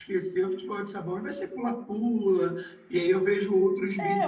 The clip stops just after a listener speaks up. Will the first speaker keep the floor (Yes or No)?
No